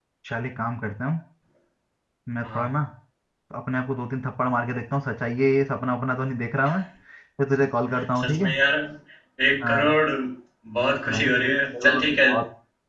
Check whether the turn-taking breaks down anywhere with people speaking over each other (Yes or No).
Yes